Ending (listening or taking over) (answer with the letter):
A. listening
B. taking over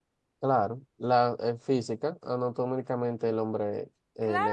B